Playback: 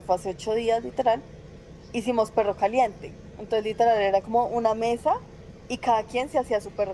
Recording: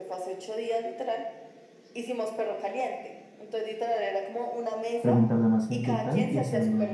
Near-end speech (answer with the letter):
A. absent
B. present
B